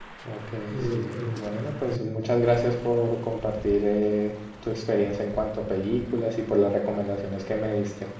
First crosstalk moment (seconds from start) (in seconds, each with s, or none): 0.9 s